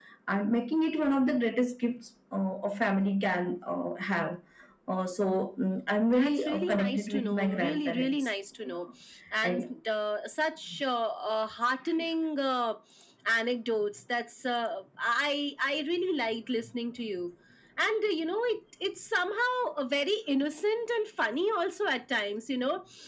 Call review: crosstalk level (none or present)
present